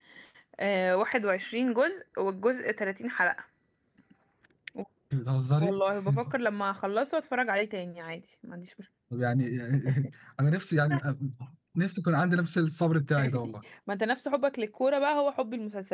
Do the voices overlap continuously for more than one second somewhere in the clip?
No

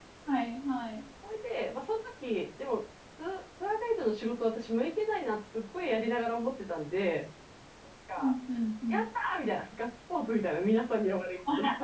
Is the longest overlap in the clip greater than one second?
No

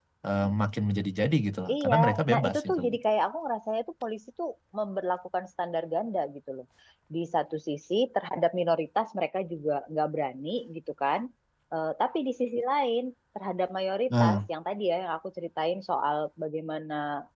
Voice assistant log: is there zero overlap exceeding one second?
No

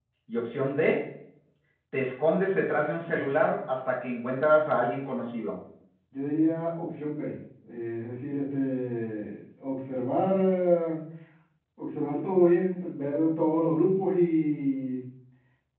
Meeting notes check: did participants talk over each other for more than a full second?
No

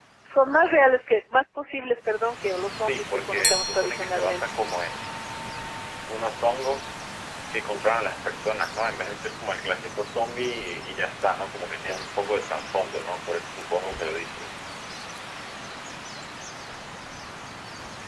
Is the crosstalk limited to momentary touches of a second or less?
No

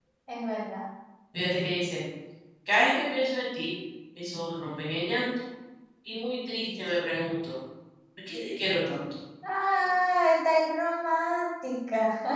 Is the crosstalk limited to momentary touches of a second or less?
Yes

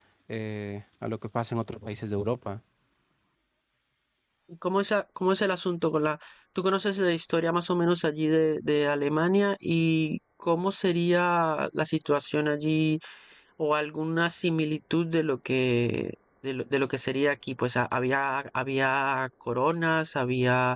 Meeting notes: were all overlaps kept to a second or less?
Yes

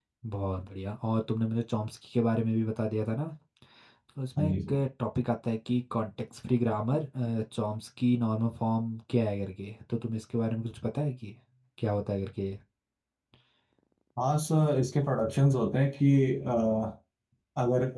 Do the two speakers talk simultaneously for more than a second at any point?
No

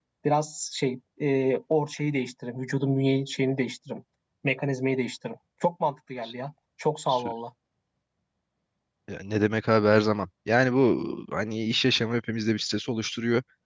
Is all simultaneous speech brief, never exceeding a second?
Yes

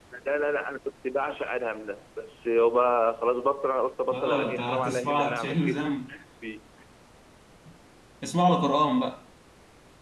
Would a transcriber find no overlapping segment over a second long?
No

